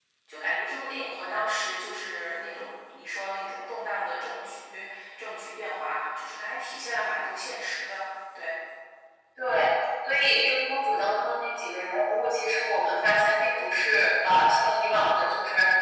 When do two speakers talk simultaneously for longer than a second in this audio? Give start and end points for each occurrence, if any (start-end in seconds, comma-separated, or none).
none